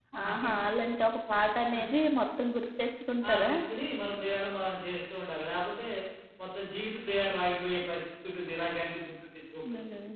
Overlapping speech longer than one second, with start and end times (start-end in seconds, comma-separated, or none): none